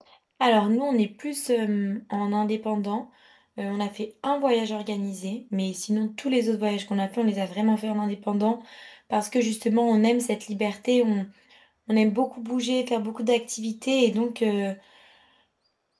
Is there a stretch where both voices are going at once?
No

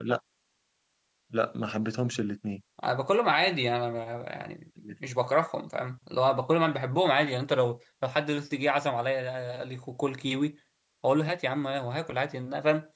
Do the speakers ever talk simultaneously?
No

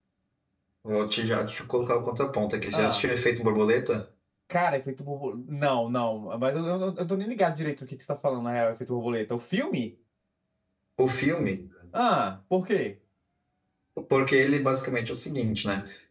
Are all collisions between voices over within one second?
Yes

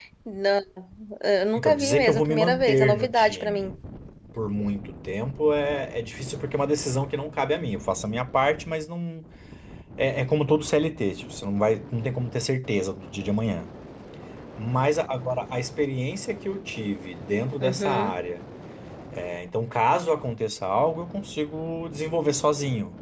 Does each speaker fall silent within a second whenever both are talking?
No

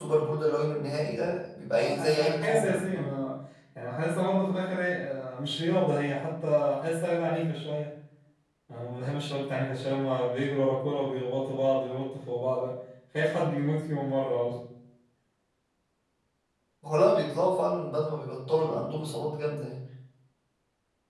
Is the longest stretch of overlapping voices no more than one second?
No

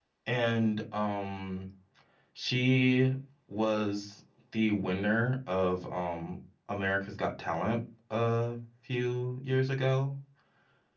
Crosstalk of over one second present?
No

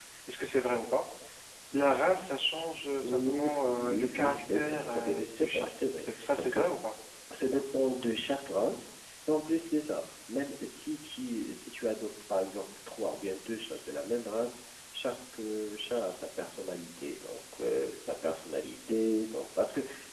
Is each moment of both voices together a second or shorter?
No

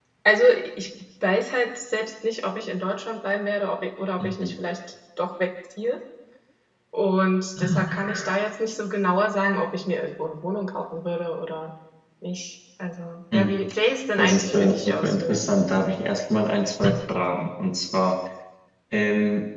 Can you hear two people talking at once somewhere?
Yes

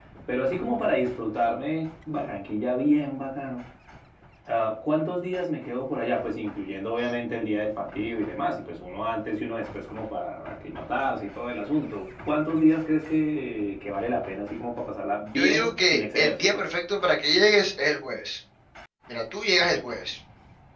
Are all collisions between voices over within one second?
No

